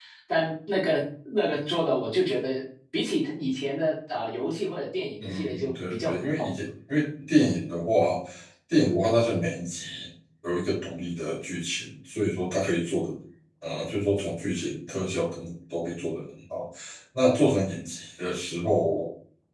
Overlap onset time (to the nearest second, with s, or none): 5 s